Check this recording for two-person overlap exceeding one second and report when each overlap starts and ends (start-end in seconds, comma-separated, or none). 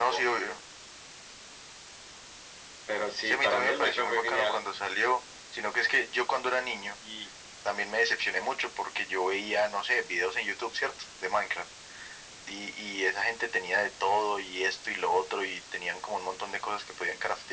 3.2-4.6